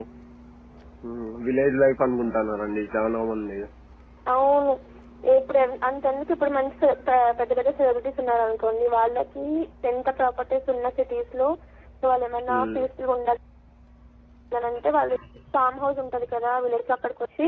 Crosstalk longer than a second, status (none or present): none